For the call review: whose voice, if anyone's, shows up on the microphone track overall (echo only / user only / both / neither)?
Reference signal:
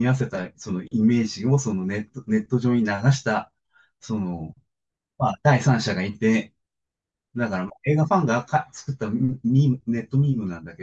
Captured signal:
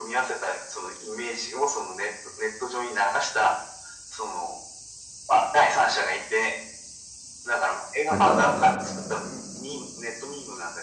both